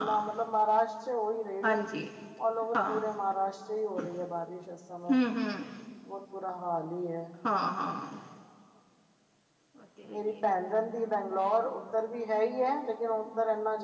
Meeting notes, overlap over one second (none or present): none